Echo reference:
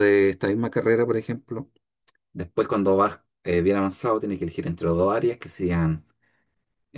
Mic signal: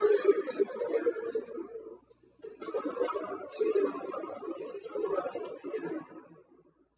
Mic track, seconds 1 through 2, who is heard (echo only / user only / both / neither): echo only